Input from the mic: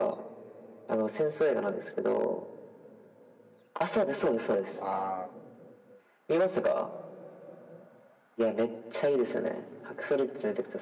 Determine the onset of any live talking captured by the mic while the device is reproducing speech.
4.7 s

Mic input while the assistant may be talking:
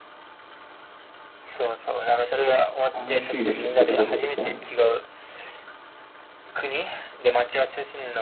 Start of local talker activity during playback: 2.9 s

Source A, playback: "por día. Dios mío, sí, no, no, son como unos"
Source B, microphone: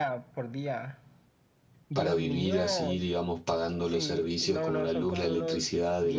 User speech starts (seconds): 1.9 s

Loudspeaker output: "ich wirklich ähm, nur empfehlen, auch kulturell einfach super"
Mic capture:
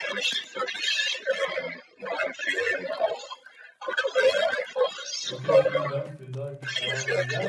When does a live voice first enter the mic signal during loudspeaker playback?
5.2 s

